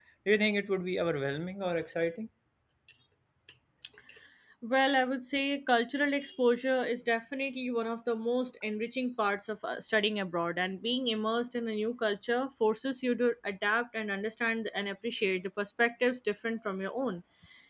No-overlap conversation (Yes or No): Yes